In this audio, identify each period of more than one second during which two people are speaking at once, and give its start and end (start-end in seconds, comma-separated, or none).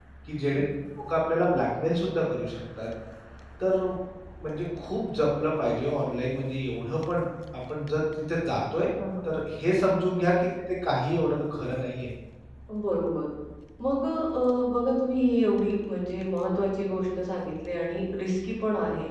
none